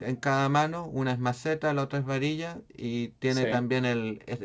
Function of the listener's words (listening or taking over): listening